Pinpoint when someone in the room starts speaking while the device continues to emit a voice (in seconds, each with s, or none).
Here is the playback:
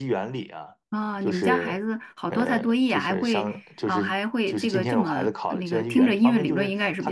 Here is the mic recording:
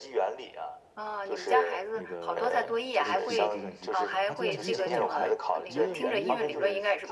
1.9 s